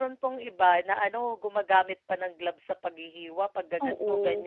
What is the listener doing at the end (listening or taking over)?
listening